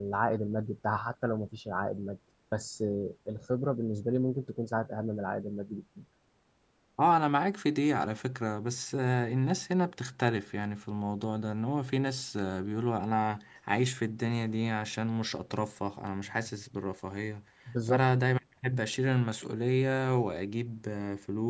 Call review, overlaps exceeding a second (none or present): none